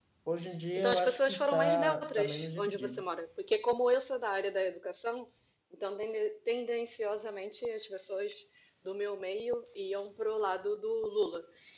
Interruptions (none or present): present